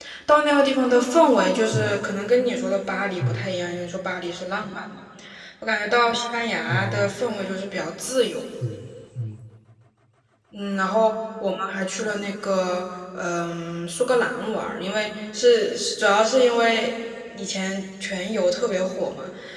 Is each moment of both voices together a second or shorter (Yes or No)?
Yes